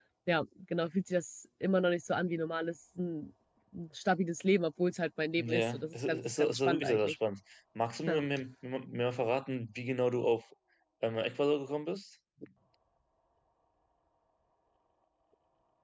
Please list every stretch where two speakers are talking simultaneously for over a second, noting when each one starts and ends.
5.4-7.1

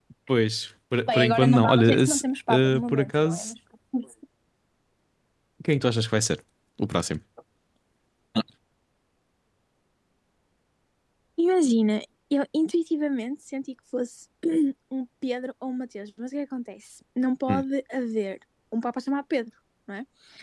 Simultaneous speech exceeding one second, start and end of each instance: 1.1-3.5

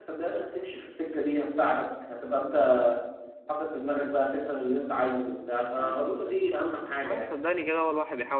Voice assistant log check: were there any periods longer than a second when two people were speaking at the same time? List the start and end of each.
none

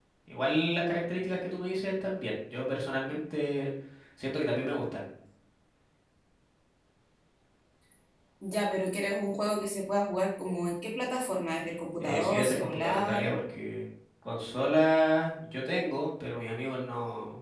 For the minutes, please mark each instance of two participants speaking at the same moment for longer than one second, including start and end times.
12.0-13.2

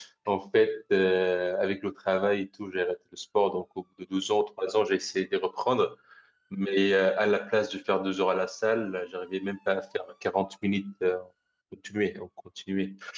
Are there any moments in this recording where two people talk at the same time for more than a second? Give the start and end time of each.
none

